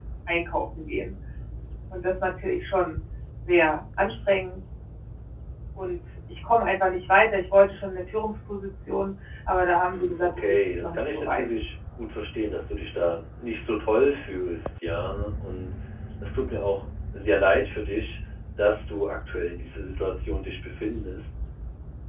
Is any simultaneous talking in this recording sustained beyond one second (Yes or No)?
Yes